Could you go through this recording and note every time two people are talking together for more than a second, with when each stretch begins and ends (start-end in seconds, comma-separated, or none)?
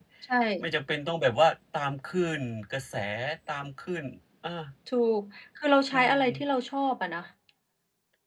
none